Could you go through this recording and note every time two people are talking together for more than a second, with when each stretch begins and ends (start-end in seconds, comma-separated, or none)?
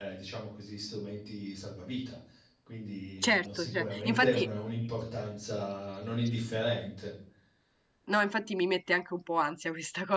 3.3-4.5